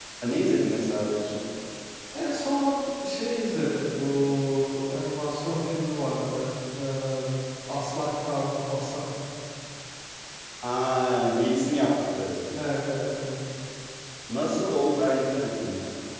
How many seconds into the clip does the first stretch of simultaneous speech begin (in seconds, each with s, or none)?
none